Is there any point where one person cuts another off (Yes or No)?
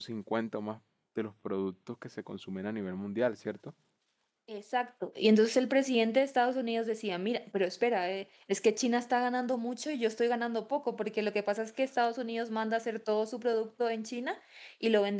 No